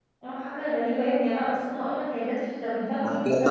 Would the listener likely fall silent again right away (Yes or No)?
No